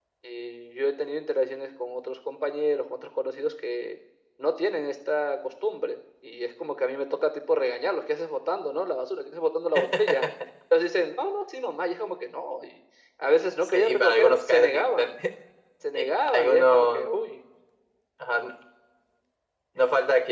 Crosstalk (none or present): present